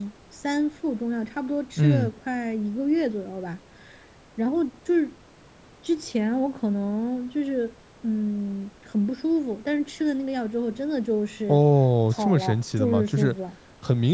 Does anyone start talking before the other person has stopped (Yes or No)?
Yes